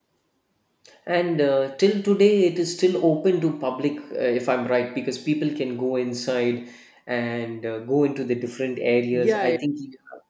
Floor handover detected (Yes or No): Yes